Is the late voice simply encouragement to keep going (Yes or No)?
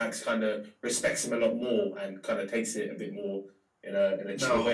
No